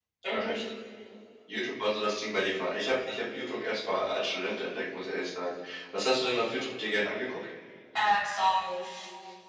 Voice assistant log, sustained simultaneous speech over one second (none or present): none